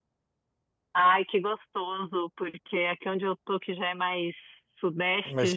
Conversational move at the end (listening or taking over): listening